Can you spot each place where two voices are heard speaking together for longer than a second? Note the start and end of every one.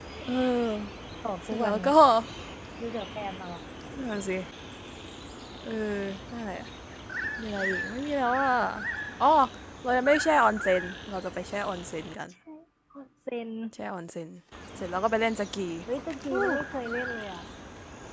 none

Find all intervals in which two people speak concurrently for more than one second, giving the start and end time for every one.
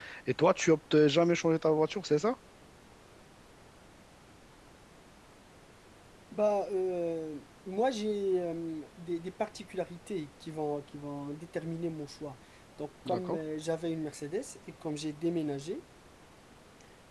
none

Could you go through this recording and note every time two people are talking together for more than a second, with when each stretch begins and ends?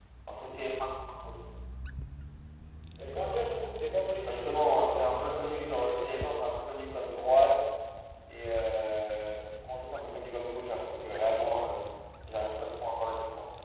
4.2-6.5

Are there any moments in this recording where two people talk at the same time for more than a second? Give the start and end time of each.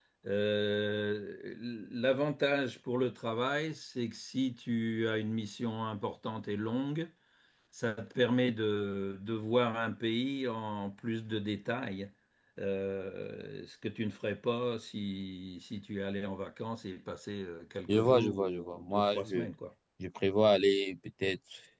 17.9-19.5

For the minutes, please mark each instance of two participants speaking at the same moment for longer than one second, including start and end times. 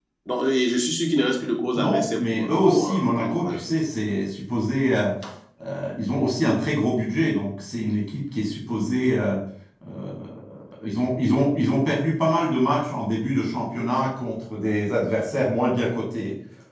1.7-3.6

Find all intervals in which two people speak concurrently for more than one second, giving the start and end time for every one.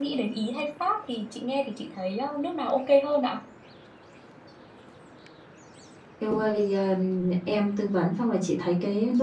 none

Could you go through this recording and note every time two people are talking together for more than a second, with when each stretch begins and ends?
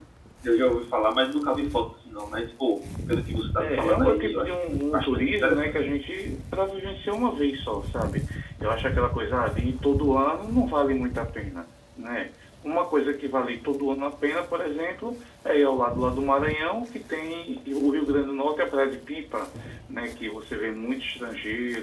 3.6-5.7

